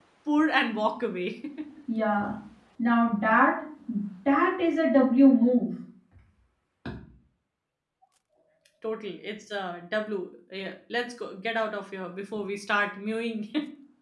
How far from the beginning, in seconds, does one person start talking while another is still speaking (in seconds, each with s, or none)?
none